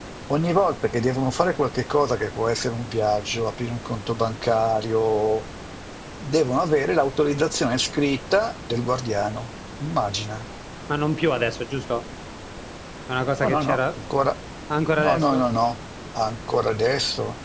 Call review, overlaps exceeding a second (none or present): none